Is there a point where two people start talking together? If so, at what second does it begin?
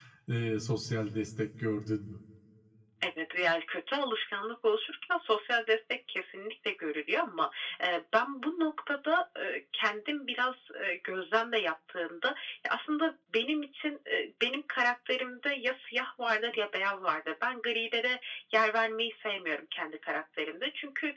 none

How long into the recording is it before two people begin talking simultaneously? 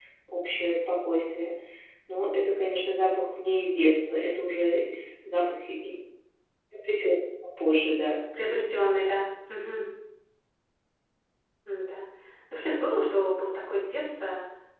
none

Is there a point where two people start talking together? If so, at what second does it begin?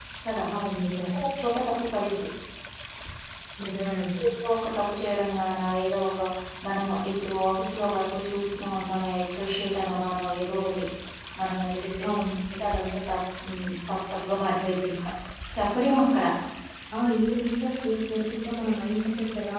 none

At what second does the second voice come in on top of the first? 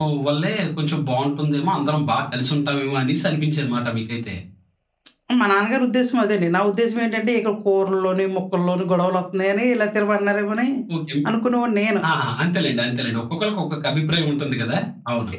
none

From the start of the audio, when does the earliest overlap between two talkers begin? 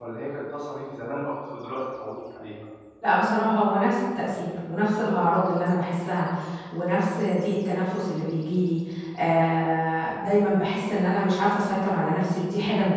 none

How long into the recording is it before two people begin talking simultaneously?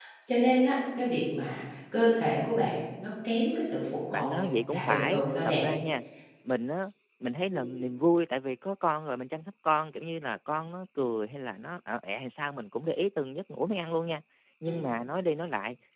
4.1 s

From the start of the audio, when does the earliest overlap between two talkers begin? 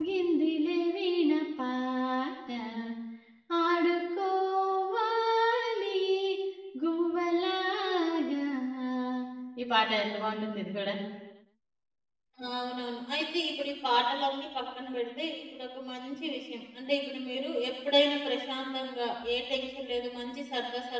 none

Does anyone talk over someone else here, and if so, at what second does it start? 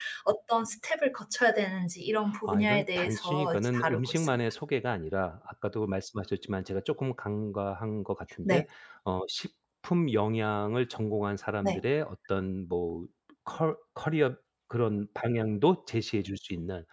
2.5 s

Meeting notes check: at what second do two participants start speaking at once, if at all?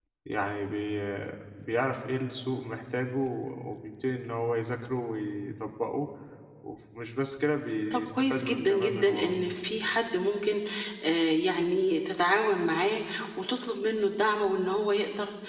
7.9 s

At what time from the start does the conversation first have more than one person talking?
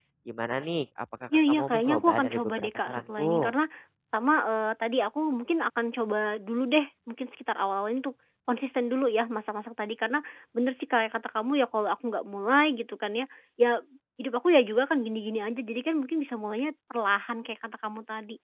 1.3 s

